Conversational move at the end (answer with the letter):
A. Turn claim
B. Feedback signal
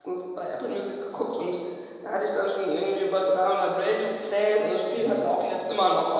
B